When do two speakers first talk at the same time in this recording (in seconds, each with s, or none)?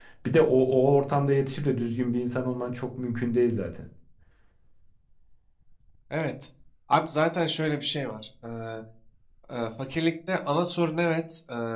none